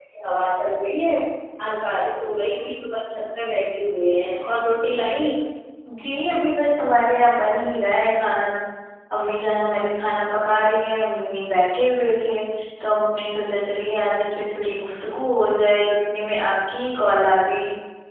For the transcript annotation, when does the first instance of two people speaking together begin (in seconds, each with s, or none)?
none